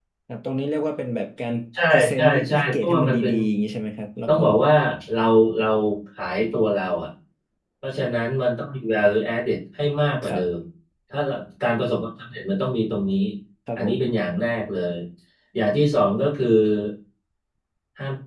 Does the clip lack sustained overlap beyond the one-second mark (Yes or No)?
No